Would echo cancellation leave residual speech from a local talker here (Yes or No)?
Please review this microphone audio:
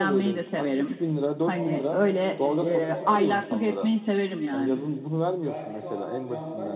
Yes